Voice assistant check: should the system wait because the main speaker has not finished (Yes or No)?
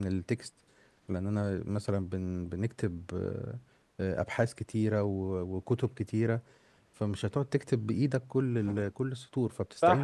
No